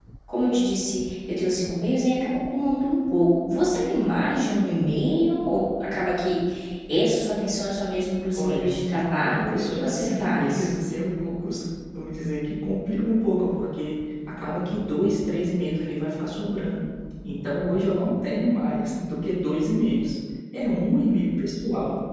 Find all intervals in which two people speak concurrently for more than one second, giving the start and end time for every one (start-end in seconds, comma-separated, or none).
9.2-10.7